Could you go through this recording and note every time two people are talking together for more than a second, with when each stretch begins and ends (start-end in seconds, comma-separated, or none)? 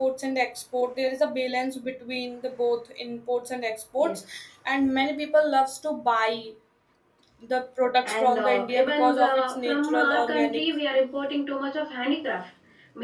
8.0-10.6